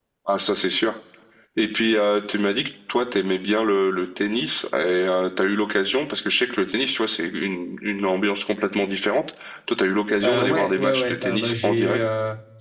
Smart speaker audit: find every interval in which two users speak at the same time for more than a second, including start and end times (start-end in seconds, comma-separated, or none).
10.2-12.0